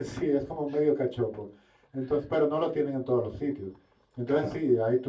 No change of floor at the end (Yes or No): Yes